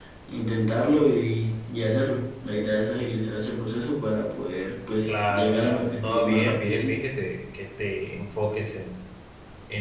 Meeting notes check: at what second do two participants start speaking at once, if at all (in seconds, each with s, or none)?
5.1 s